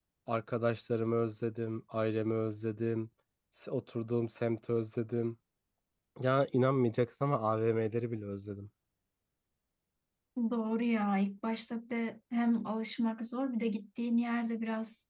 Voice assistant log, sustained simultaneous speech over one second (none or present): none